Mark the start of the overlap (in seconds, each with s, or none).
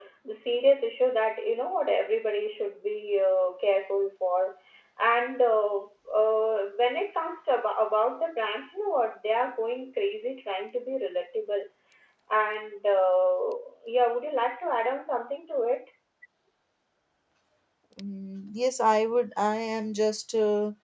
none